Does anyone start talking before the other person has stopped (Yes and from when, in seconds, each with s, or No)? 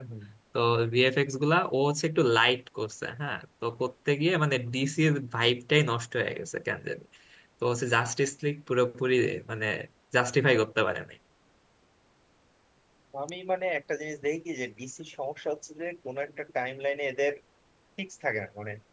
No